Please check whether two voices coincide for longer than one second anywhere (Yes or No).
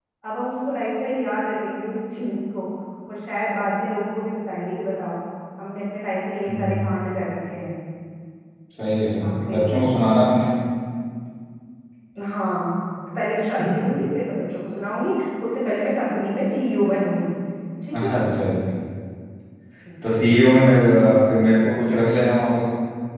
No